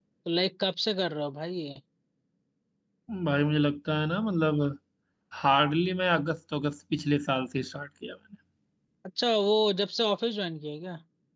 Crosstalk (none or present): none